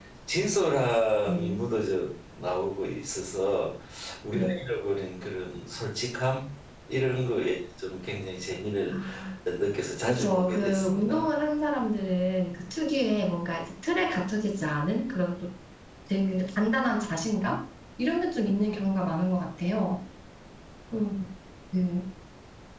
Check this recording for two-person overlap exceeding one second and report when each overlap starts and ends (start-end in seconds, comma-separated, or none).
10.1-11.3